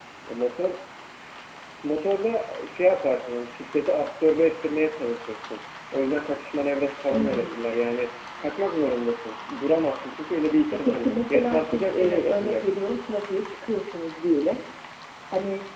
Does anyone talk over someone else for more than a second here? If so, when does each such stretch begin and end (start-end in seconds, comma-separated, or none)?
10.8-12.7